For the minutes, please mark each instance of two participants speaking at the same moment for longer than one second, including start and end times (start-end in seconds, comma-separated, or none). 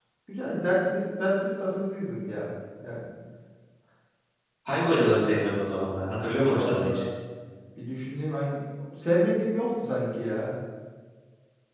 none